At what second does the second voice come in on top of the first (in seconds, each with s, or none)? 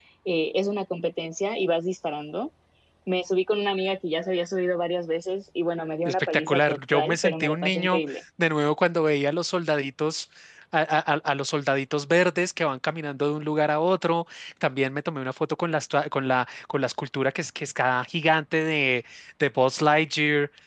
6.0 s